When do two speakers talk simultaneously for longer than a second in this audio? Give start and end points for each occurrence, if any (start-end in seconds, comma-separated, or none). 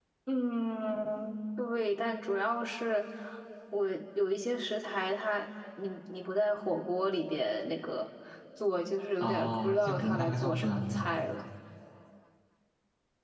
9.2-11.1